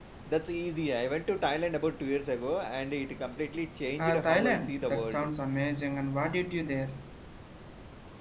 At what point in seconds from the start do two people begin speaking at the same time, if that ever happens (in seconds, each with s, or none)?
4.0 s